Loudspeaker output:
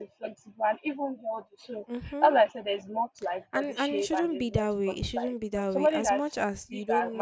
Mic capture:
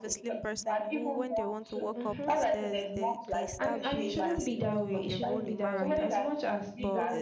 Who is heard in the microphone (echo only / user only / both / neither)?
both